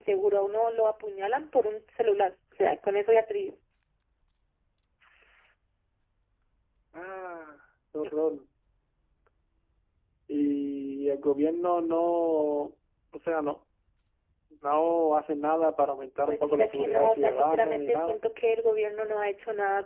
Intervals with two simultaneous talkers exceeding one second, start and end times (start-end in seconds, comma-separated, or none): 16.3-18.2